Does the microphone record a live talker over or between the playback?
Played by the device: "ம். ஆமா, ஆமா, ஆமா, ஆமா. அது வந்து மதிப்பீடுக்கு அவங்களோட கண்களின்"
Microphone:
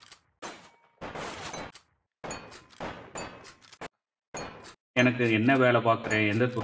Yes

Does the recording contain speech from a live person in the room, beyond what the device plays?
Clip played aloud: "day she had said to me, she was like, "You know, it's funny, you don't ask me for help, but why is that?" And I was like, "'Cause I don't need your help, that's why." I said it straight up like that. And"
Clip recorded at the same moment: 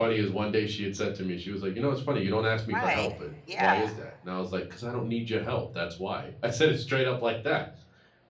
Yes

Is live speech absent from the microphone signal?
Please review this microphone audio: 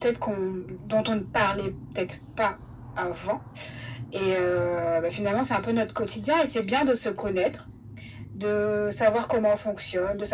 Yes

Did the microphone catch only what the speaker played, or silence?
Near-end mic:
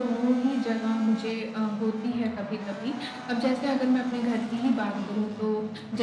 Yes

